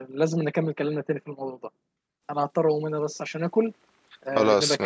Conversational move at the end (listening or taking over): taking over